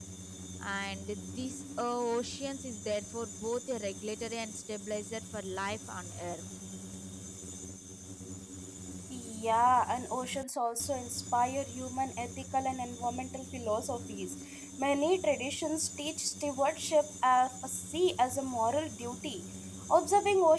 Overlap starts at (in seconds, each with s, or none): none